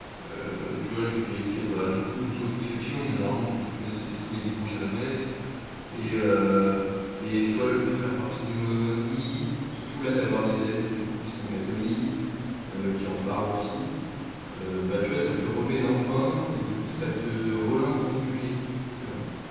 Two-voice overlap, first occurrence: none

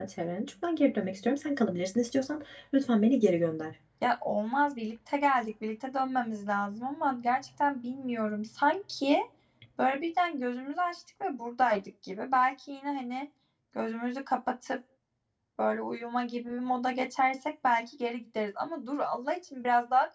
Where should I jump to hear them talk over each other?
none

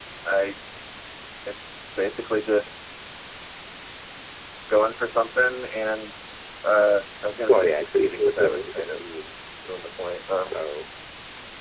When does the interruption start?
7.5 s

